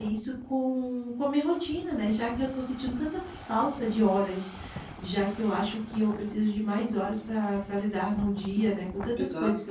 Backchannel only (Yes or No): Yes